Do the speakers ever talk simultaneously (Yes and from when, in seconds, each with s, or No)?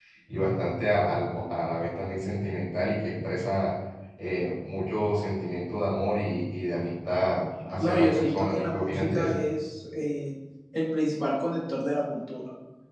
Yes, from 7.8 s